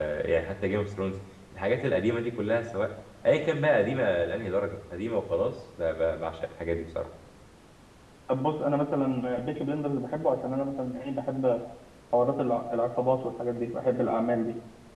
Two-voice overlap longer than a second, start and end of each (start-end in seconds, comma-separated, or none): none